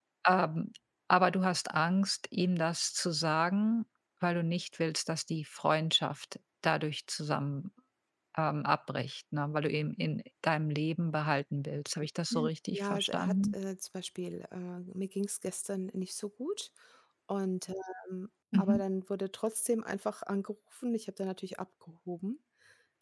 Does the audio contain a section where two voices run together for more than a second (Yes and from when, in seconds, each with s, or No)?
Yes, from 12.3 s